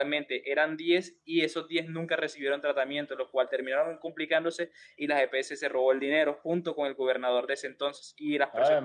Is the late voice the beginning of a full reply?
No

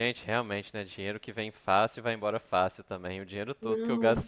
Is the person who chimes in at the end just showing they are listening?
Yes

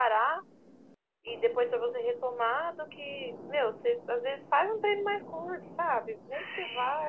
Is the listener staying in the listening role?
Yes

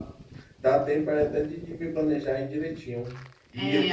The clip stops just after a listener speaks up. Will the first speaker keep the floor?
No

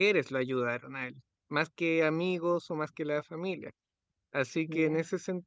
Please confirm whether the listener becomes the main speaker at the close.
No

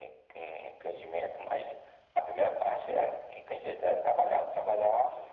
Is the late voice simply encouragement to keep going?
No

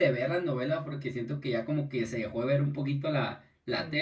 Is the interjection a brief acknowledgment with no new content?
No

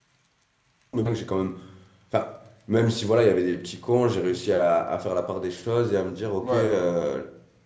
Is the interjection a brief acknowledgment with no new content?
Yes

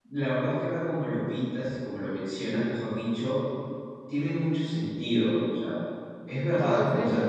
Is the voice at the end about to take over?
Yes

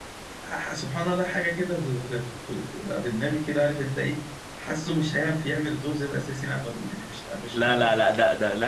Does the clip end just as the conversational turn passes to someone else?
Yes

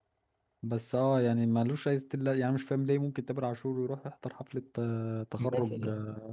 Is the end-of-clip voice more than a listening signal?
No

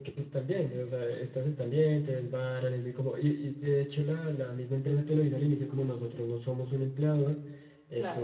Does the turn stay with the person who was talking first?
Yes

